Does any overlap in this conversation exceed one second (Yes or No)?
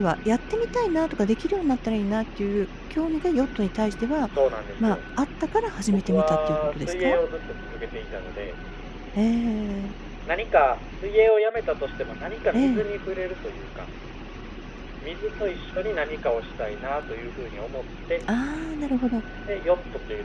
Yes